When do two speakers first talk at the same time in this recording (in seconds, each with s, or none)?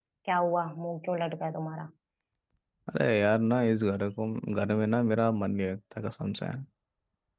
none